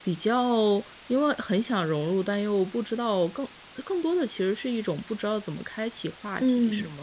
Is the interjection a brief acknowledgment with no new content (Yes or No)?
No